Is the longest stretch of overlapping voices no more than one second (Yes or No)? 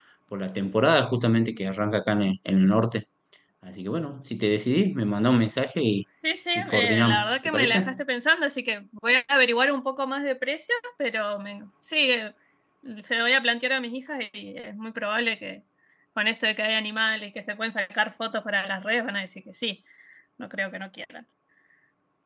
No